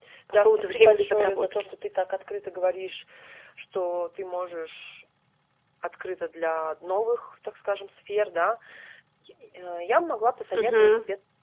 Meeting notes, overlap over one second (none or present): present